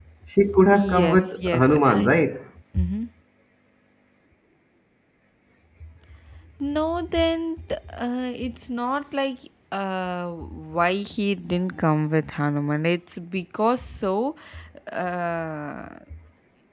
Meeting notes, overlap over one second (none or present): present